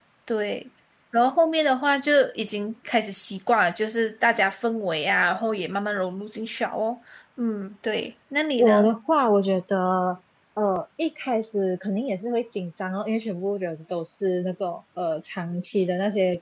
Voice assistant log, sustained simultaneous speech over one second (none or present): none